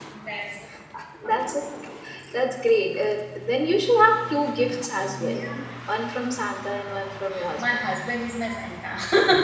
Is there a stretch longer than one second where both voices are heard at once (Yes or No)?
No